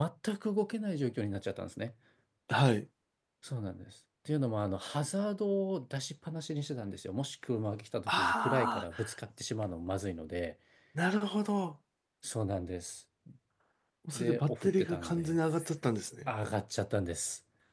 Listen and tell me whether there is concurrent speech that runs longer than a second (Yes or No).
Yes